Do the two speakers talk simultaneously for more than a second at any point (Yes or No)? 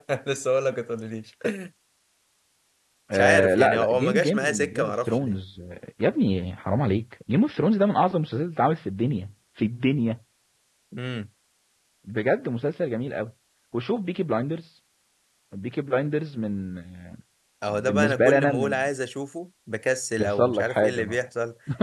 Yes